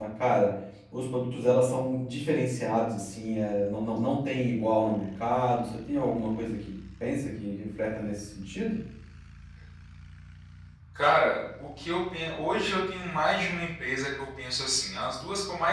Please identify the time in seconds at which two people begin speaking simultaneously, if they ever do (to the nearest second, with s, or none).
none